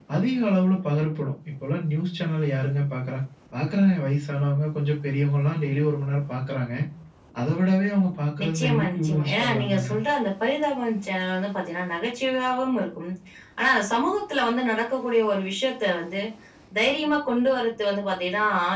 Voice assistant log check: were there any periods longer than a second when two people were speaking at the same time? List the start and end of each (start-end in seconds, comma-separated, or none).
8.4-9.9